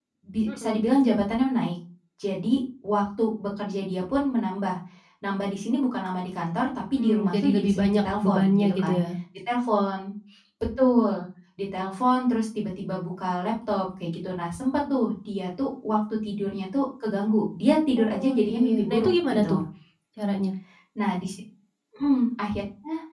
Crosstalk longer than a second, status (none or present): present